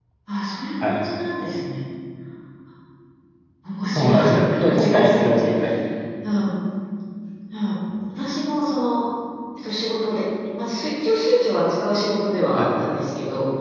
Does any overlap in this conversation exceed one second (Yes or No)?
Yes